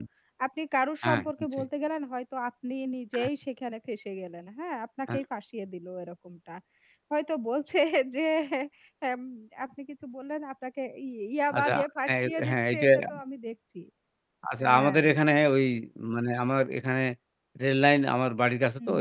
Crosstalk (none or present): present